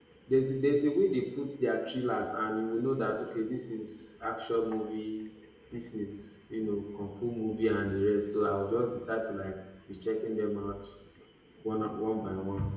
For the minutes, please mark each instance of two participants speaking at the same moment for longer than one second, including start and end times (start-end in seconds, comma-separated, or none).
none